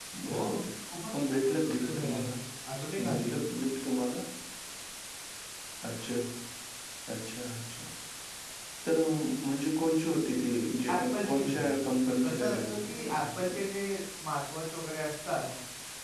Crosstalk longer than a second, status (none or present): present